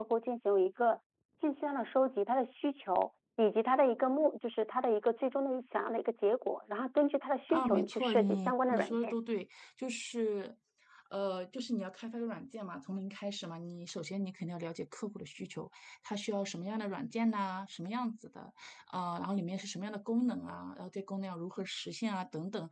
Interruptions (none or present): present